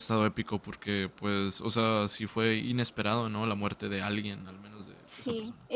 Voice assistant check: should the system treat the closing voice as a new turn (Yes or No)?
Yes